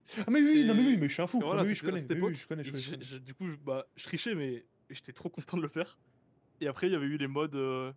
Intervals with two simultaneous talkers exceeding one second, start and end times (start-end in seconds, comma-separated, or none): 1.4-3.1